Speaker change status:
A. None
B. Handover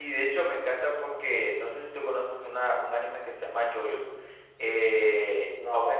A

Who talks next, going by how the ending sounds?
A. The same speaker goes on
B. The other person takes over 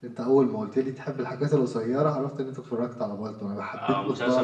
B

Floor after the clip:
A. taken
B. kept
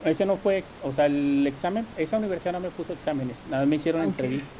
B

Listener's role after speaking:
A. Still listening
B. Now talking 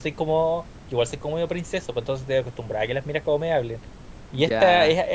A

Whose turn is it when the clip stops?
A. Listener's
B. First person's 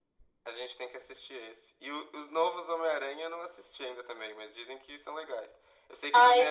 B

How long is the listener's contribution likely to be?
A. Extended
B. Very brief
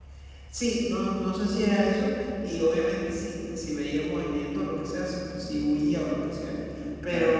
B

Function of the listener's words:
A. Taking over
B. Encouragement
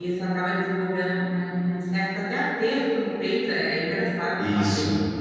A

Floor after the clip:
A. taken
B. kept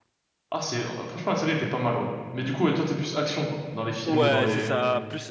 A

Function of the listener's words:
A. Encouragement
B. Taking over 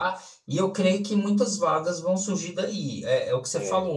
A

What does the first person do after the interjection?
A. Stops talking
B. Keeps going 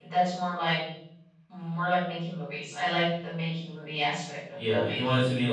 A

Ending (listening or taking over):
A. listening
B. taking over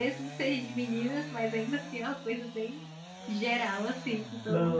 B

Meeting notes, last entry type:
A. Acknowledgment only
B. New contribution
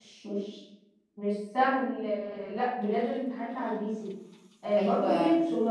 A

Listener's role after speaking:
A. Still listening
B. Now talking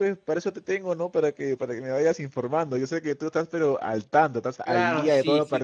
B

